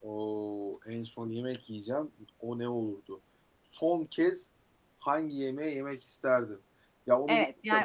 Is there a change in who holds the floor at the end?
Yes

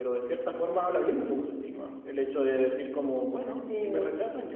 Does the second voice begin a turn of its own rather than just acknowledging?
No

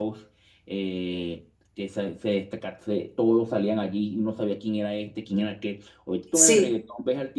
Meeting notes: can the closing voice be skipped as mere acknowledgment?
Yes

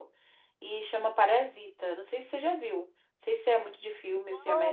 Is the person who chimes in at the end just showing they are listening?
No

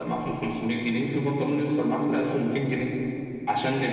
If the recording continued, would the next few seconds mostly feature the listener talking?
No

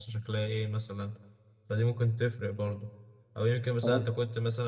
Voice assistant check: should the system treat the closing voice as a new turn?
No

